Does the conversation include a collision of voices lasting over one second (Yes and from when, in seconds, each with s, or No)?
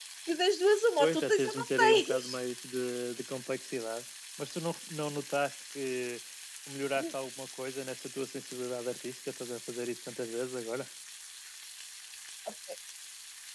Yes, from 1.0 s